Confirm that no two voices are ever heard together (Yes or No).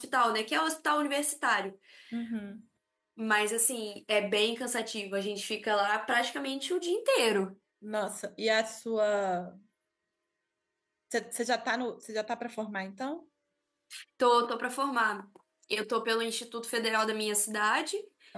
Yes